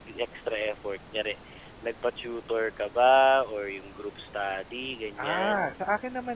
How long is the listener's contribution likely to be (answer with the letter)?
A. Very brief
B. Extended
B